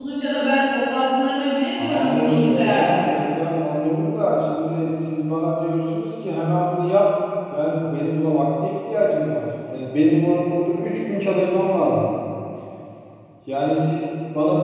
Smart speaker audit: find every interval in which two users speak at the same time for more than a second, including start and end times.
1.8-3.1

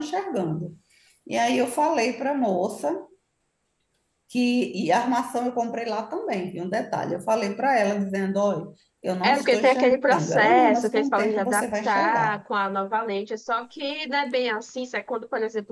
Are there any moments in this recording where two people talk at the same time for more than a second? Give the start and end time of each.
9.2-12.4

